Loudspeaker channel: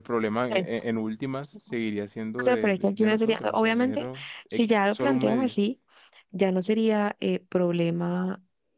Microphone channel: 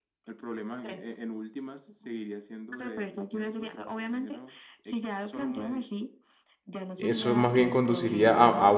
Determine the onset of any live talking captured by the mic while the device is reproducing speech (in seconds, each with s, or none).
7.0 s